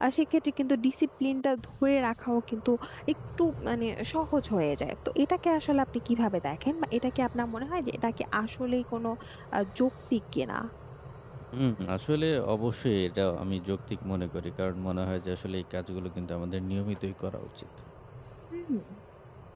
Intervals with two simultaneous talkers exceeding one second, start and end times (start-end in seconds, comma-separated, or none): none